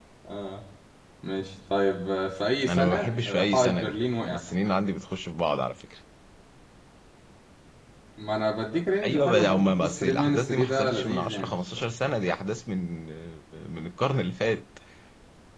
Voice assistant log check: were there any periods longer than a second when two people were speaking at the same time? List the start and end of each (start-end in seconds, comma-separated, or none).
2.7-4.4, 9.0-11.5